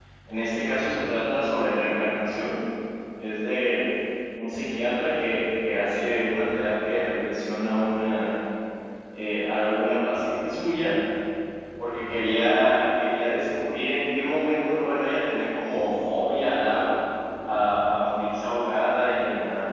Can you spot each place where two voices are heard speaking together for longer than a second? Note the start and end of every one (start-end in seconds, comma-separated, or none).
none